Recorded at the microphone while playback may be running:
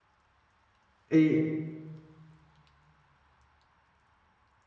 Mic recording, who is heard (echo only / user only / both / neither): user only